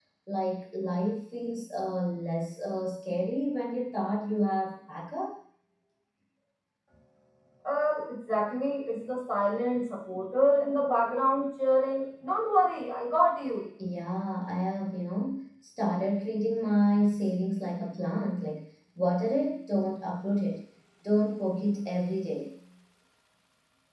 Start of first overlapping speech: none

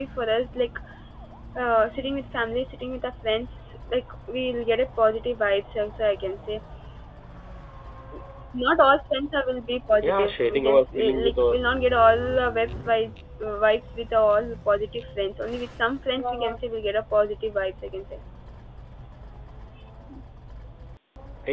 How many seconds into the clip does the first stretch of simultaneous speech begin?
10 s

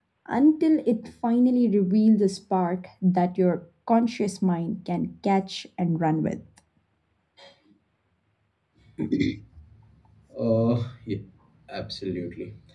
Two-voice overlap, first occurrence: none

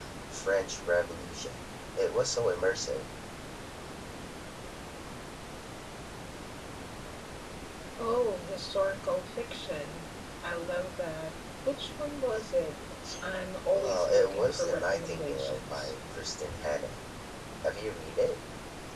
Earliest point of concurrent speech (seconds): 14 s

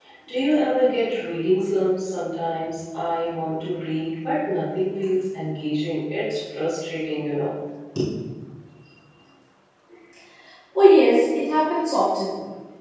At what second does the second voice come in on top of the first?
none

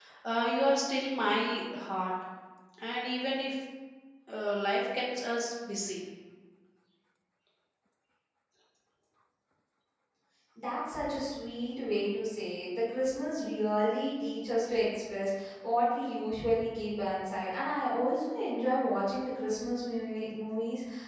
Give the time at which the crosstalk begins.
none

